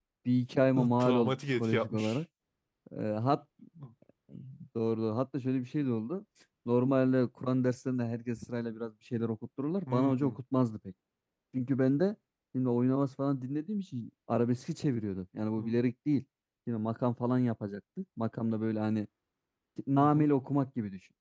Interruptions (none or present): present